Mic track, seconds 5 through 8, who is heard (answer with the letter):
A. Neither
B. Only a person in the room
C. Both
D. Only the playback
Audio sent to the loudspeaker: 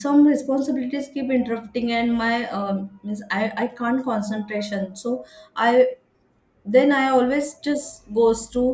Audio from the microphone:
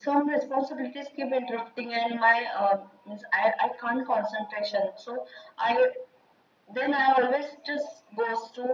D